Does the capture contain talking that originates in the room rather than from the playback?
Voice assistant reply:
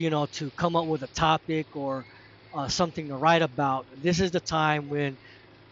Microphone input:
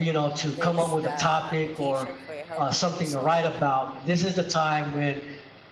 Yes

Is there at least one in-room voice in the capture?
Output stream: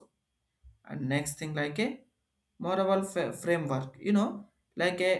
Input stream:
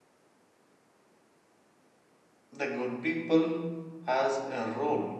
Yes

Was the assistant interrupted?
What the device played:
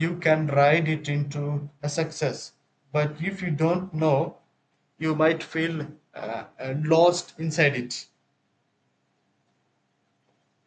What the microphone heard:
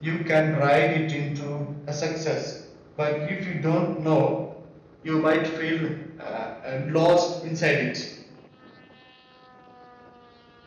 No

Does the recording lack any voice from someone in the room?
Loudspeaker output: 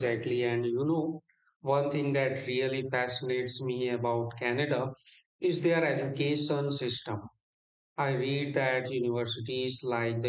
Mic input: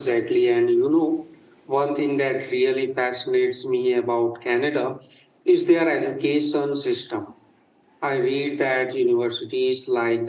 Yes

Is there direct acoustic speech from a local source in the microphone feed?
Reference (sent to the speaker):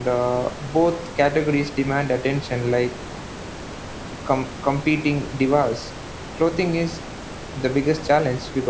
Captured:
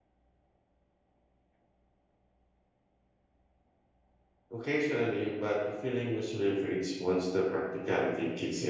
Yes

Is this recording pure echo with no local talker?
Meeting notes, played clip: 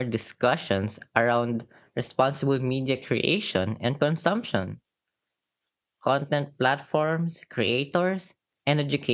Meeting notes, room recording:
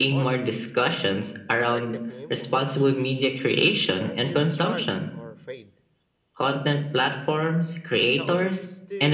No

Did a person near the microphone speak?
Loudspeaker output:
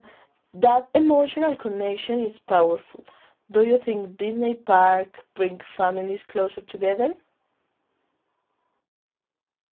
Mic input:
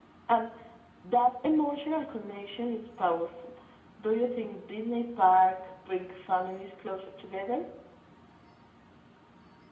No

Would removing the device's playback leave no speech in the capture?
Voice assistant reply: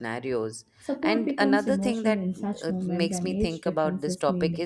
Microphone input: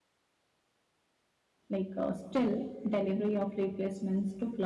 No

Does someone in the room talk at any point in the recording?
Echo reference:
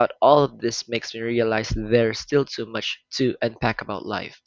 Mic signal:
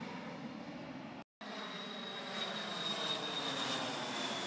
No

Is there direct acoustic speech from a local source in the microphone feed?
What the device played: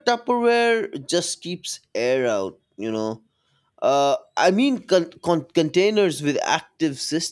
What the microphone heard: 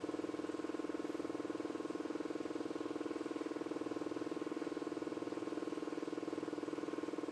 No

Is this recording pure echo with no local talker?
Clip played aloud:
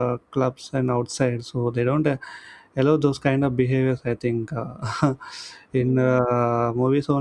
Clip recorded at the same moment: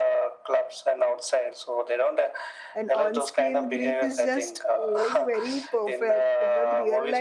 No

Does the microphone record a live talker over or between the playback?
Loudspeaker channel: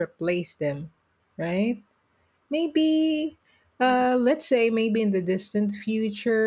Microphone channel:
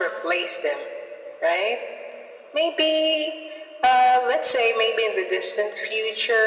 No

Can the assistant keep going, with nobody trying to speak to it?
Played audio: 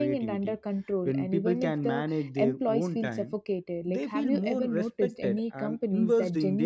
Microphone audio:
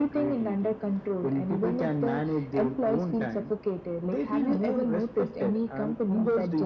Yes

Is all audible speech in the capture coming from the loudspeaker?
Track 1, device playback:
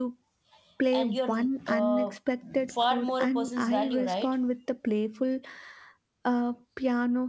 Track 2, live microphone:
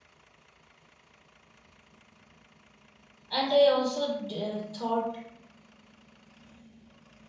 No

